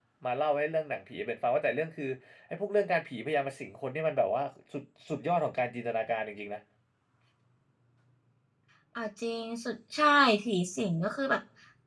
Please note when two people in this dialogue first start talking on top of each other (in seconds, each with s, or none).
none